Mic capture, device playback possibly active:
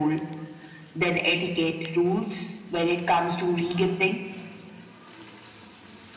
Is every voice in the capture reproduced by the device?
Yes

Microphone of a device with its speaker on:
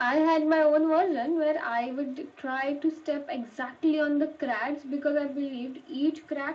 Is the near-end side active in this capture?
No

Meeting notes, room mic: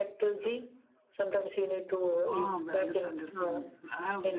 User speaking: Yes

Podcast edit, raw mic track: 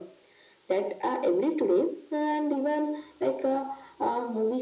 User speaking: No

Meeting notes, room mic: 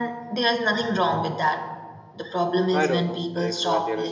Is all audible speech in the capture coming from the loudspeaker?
No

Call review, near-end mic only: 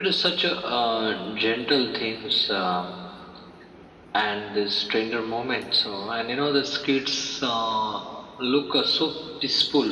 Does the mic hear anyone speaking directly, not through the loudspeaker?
No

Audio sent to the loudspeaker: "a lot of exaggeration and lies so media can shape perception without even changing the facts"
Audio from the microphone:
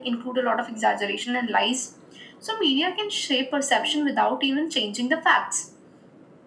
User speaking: No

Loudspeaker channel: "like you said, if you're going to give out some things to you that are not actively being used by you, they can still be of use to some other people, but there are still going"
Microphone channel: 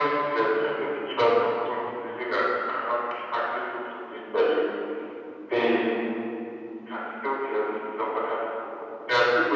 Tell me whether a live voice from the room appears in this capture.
No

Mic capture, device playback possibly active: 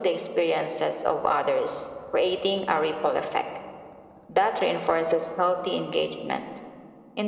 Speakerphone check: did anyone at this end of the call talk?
No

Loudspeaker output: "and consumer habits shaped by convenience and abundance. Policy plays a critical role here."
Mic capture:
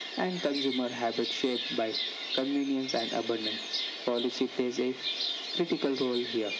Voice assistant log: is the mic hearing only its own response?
Yes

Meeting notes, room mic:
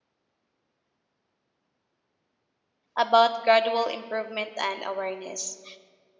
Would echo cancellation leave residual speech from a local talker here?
Yes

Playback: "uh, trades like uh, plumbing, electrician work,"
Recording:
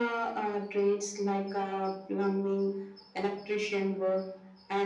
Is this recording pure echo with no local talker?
Yes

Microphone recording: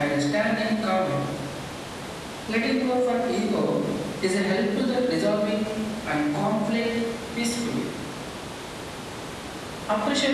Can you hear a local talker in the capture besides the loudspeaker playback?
No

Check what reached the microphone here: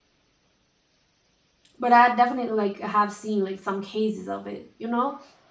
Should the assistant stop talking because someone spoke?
Yes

